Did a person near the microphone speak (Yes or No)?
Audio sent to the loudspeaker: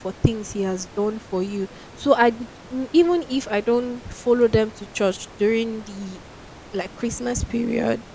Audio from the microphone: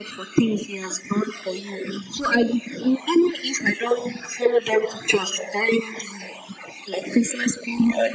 No